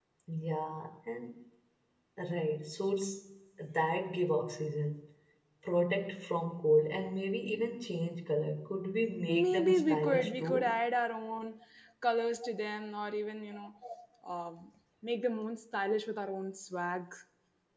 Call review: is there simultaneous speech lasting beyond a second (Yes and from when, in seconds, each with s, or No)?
Yes, from 9.3 s